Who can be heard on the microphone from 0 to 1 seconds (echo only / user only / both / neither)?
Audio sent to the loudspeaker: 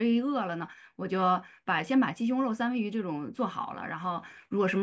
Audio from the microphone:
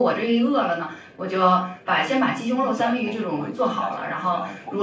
echo only